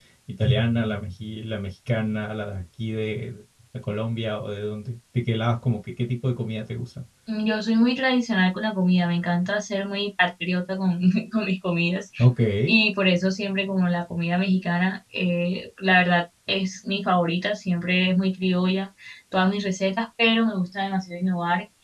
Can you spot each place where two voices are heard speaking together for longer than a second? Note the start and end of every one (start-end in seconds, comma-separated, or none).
none